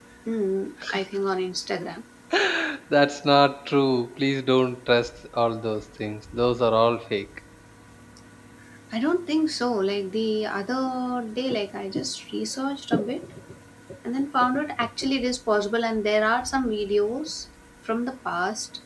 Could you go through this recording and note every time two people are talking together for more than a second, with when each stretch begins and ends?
none

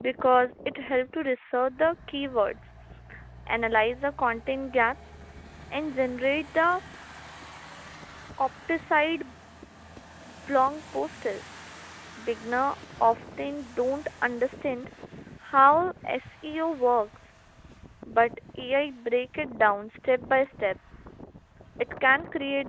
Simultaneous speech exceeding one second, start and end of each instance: none

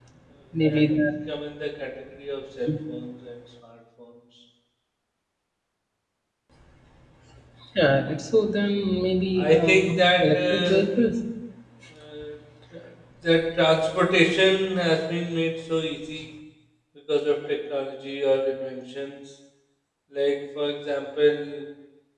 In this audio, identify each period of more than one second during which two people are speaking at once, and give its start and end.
9.3-10.9

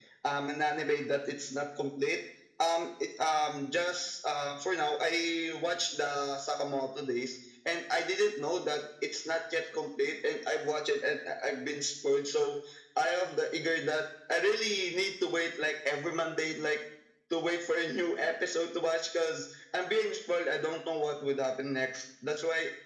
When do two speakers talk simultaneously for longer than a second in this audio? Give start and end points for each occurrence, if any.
none

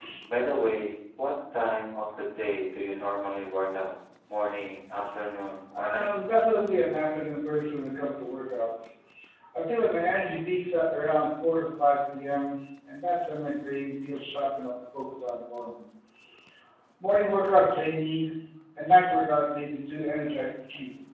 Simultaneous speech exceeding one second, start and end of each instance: none

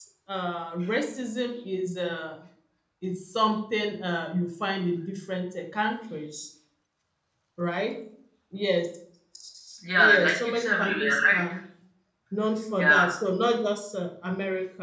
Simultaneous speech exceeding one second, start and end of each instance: 10.0-11.4

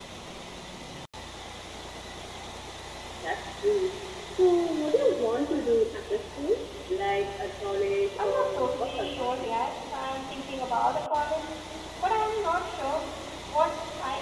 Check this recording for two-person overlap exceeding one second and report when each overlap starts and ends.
8.2-9.5

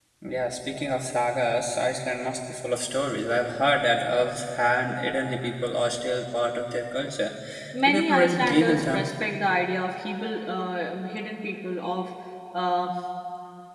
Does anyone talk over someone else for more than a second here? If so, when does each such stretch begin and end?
7.8-9.1

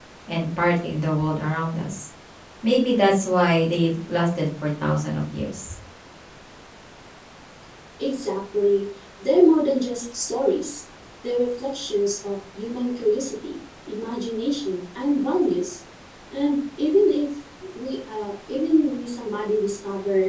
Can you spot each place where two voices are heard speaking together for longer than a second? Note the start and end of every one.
none

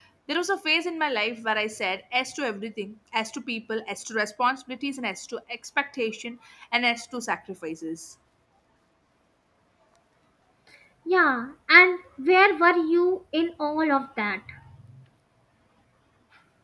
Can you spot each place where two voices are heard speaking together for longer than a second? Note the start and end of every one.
none

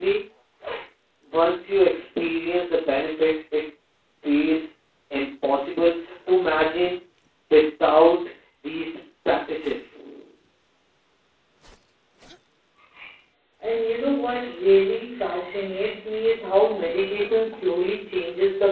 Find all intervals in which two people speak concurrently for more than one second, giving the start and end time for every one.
none

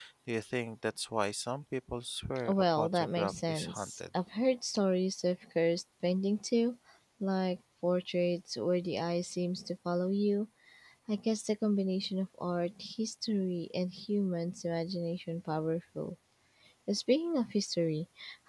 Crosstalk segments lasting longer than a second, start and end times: 2.5-3.9

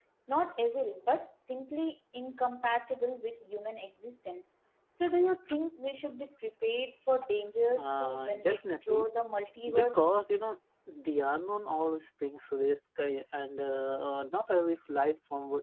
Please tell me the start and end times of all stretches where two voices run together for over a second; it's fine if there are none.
7.8-9.1

